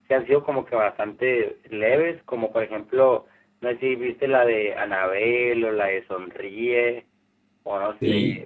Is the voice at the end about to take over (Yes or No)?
Yes